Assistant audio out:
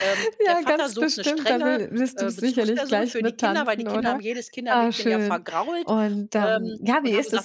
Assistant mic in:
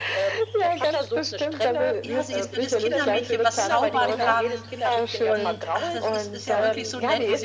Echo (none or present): present